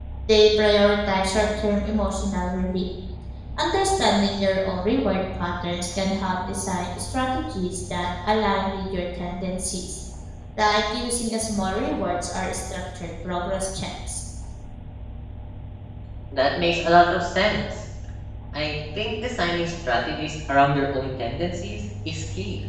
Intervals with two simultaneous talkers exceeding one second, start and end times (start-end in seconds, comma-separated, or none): none